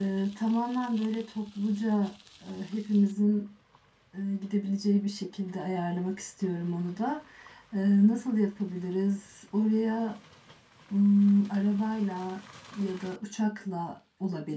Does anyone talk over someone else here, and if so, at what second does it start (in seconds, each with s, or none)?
none